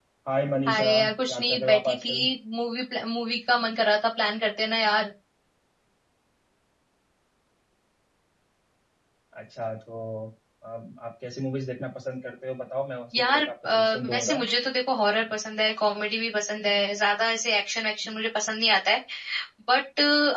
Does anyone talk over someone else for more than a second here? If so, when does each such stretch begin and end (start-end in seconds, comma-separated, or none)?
0.7-2.1, 13.2-14.4